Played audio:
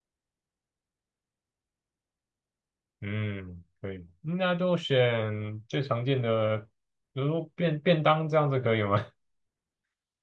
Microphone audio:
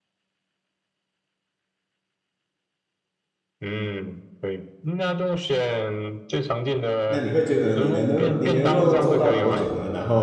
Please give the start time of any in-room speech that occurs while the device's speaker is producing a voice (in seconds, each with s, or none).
7.1 s